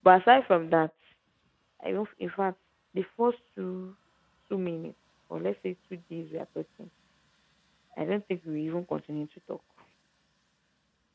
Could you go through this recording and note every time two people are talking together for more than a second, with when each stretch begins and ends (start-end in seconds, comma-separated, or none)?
none